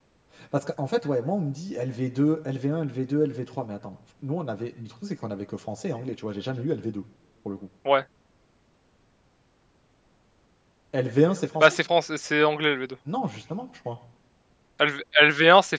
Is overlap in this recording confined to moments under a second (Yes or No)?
Yes